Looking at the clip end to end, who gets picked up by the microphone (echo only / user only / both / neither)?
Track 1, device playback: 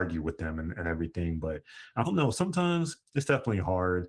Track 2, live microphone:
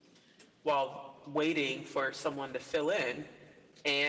user only